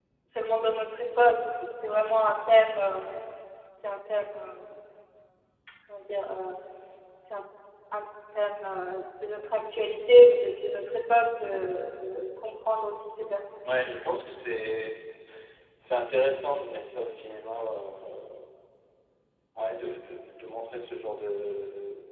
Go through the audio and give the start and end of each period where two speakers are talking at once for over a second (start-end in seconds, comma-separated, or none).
none